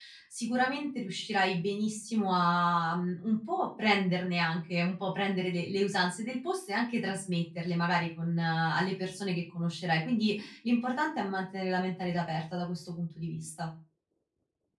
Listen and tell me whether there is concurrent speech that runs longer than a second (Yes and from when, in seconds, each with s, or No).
No